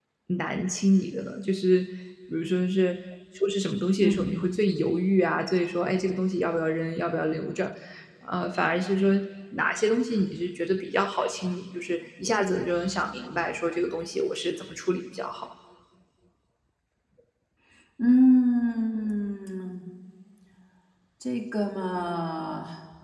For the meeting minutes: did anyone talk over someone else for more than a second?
No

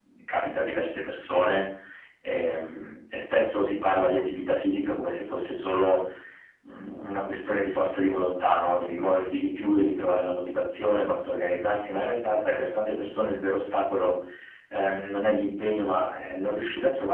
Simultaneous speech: No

